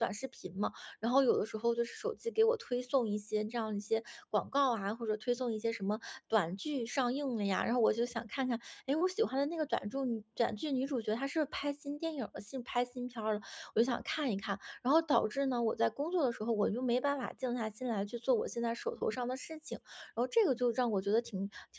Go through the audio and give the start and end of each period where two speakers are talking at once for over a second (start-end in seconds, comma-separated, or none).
none